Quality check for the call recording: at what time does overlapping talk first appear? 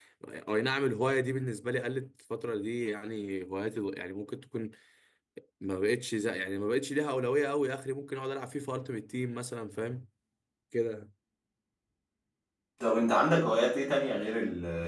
none

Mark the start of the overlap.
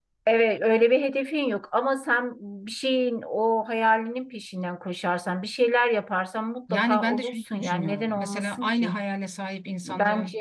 6.7 s

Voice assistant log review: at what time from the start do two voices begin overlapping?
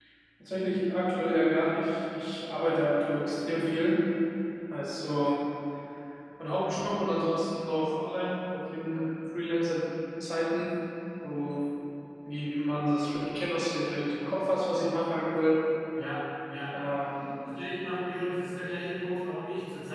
none

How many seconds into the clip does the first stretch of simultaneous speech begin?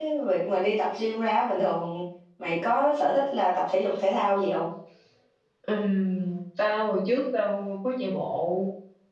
none

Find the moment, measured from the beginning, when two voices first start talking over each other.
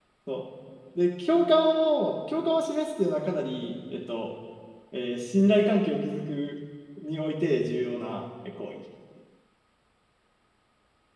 none

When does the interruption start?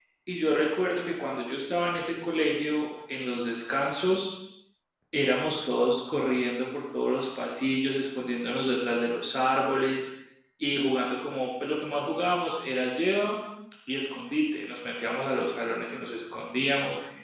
none

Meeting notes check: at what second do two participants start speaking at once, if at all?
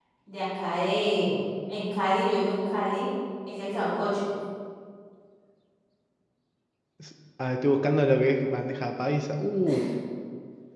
none

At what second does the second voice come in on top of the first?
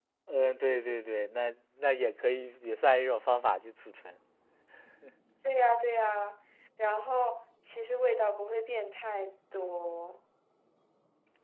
none

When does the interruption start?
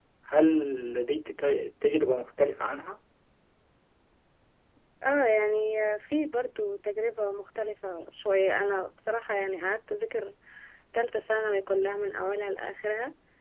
none

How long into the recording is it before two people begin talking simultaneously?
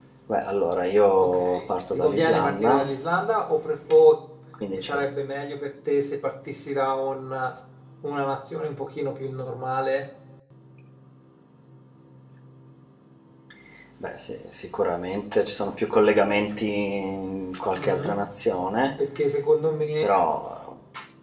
1.2 s

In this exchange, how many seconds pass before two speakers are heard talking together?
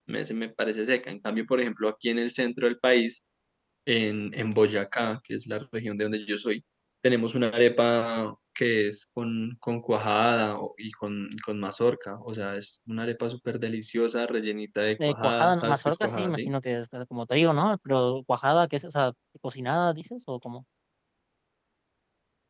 15.0 s

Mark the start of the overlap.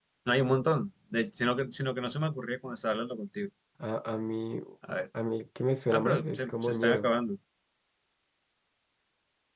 5.9 s

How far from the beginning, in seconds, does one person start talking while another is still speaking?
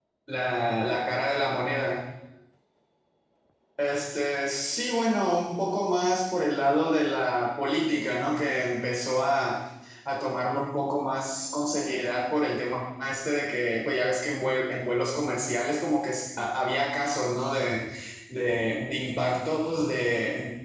none

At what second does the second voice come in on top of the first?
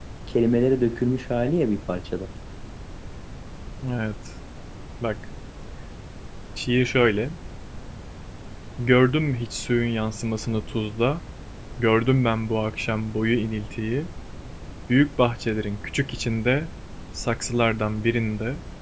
none

